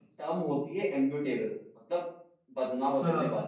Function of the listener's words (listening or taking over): listening